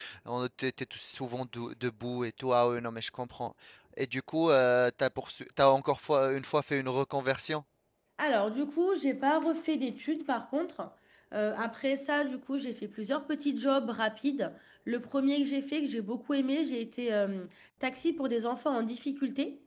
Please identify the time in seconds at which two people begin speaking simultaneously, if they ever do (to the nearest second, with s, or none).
none